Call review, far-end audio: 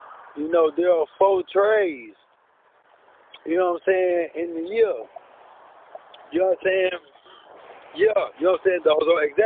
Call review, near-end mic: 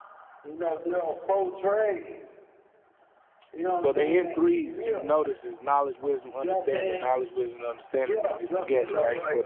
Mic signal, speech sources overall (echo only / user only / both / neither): both